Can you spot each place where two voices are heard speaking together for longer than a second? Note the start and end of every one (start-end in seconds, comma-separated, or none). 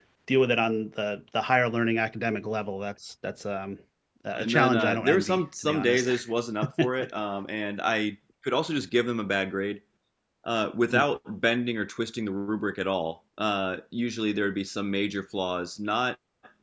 4.3-6.1